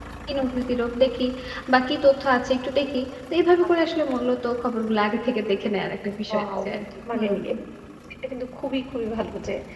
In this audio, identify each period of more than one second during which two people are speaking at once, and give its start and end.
none

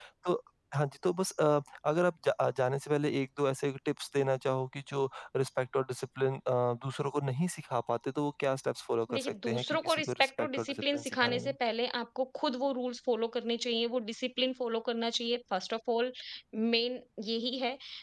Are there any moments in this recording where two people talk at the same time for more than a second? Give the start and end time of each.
9.1-11.5

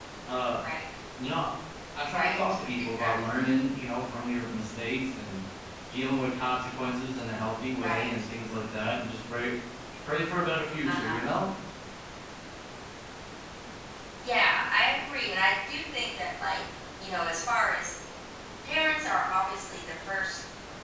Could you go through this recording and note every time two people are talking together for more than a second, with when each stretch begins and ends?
2.1-3.4

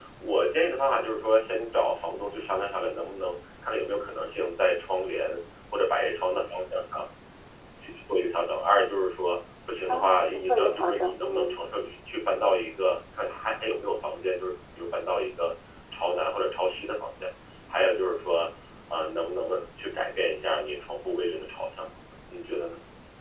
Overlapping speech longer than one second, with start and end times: 9.9-11.6

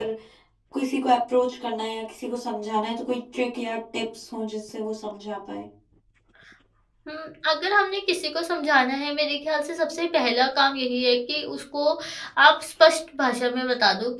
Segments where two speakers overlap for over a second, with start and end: none

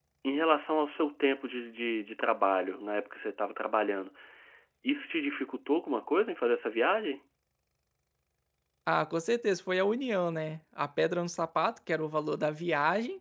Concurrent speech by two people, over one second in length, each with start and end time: none

